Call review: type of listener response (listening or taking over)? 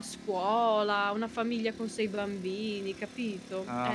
taking over